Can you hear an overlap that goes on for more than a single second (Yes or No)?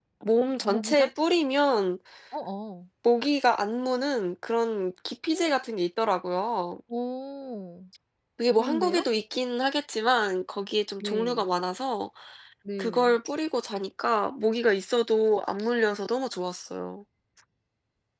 No